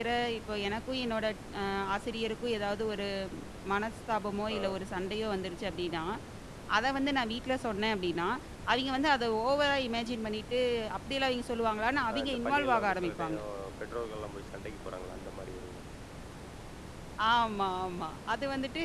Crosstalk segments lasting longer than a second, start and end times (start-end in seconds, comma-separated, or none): 12.1-13.4